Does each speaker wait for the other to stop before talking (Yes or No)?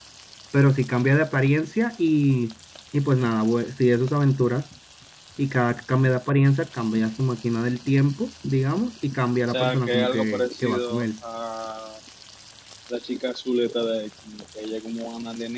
No